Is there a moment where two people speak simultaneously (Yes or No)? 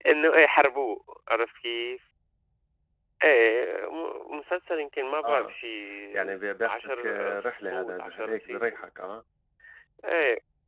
Yes